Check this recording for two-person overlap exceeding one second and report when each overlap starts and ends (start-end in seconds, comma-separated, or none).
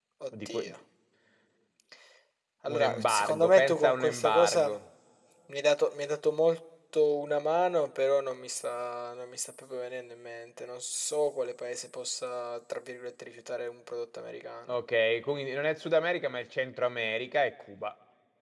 2.7-4.7